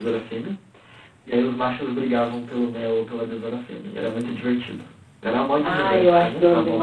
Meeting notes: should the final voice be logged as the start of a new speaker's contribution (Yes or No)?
Yes